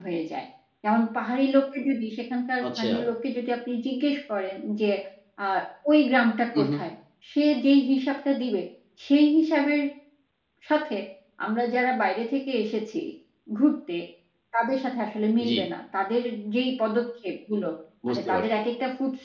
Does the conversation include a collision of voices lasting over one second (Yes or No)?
No